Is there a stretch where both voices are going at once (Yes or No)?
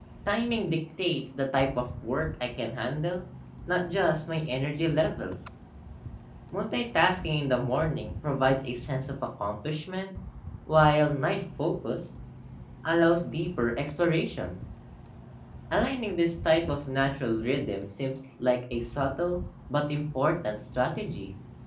No